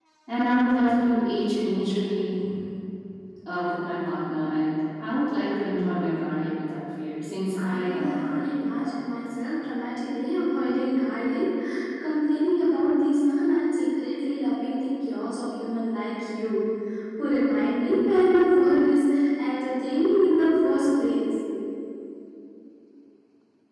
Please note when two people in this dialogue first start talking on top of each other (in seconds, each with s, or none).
7.6 s